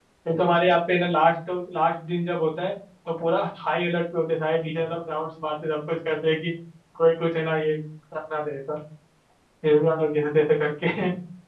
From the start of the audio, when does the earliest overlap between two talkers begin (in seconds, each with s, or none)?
none